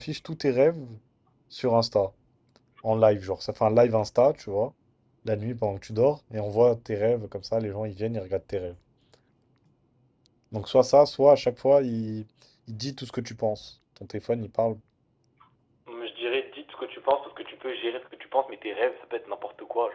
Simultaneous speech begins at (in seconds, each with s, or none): none